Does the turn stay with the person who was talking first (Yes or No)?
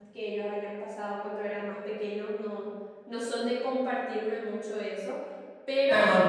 No